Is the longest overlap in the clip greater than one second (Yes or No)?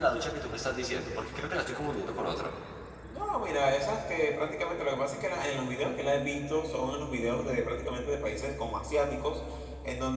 No